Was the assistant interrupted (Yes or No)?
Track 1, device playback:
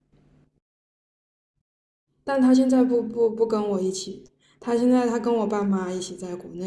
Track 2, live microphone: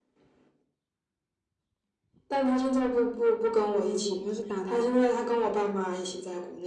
Yes